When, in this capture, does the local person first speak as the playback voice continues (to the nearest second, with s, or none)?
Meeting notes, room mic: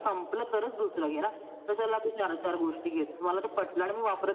none